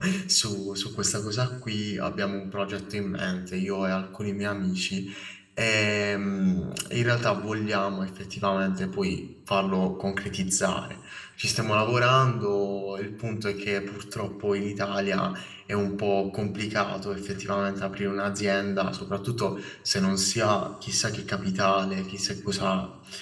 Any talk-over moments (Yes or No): No